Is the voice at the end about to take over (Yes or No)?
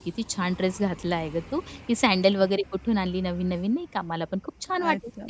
Yes